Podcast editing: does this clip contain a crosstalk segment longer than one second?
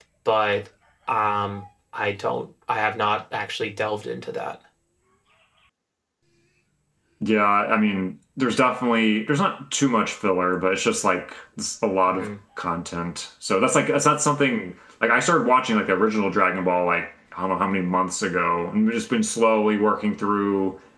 No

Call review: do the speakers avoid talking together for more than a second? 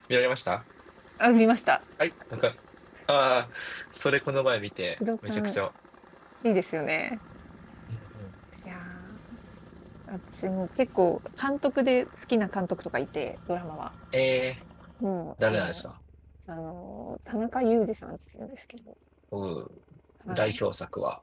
Yes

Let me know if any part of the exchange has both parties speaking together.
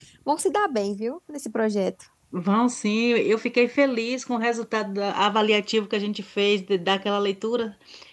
No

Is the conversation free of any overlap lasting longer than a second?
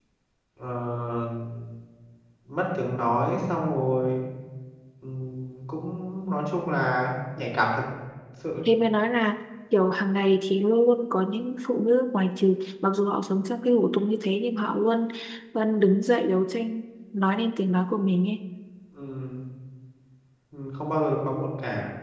Yes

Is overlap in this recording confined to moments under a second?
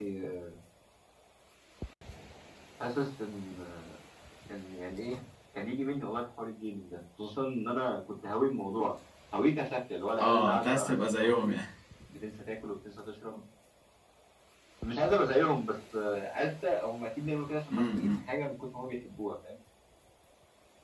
No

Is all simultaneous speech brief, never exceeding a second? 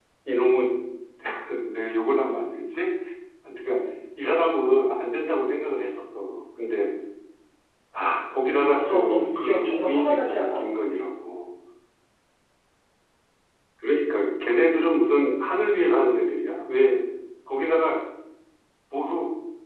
No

